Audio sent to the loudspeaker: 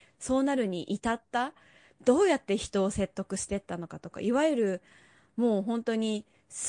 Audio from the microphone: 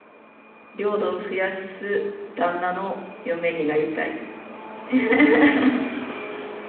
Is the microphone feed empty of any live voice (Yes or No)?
No